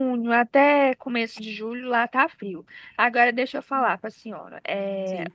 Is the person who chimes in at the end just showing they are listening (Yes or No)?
Yes